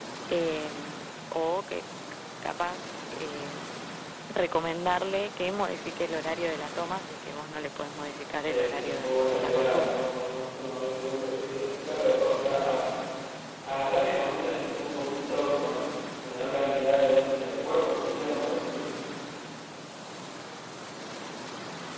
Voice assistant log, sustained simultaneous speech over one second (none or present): present